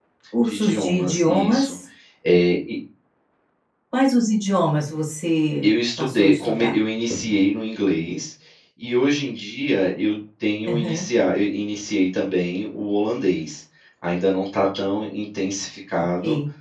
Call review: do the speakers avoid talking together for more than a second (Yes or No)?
No